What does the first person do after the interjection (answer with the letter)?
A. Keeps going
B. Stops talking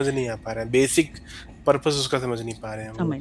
B